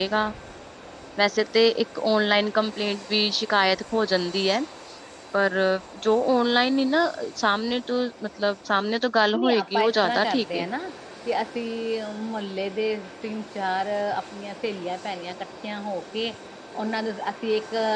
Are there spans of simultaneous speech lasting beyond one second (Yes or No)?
Yes